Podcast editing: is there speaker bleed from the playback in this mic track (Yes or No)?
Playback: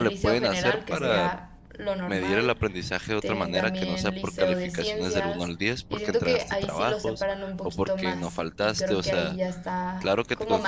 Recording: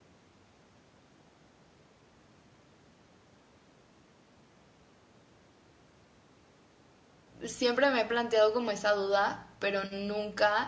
No